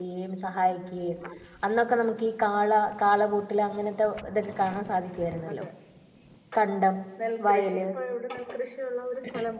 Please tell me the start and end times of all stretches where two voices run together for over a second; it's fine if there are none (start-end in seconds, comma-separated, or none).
none